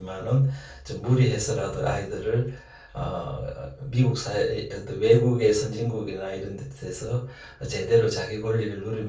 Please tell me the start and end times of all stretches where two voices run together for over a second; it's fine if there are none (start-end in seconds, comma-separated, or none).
none